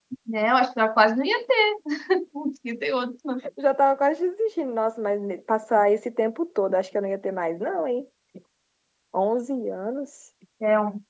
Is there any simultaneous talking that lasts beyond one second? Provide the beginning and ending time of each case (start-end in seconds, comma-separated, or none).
none